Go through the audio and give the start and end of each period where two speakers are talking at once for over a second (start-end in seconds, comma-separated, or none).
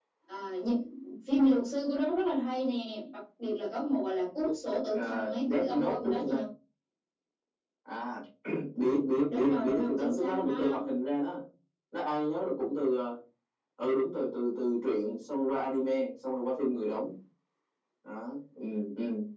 4.9-6.4, 9.3-10.9